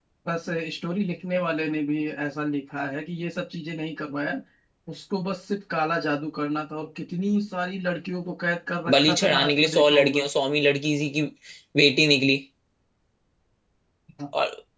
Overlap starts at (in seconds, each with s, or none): 8.9 s